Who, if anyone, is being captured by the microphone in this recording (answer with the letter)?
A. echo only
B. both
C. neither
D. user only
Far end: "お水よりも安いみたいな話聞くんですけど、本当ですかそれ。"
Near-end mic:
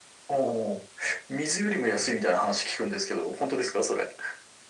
A